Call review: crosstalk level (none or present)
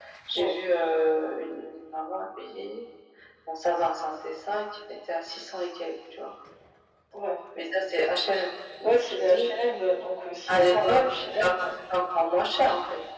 present